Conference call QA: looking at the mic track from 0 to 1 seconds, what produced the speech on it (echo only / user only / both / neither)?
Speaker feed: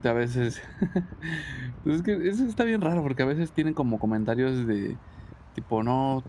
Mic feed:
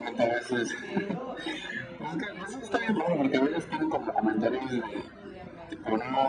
both